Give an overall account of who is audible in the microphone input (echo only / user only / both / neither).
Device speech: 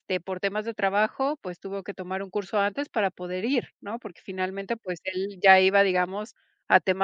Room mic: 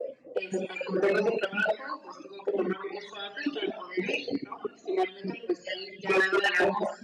echo only